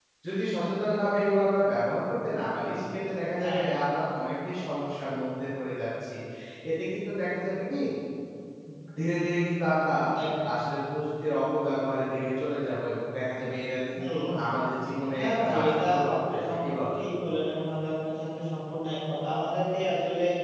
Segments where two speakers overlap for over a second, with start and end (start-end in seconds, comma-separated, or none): 15.2-17.0